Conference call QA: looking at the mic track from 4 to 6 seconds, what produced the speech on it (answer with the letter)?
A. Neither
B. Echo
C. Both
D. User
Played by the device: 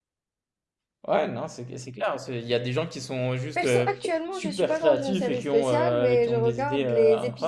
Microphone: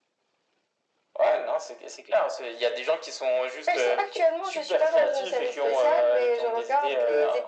B